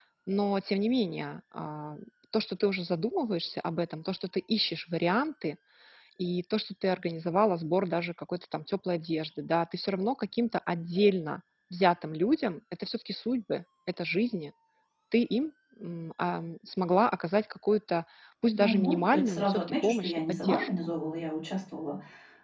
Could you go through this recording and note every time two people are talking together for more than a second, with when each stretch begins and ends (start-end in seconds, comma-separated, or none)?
18.5-20.7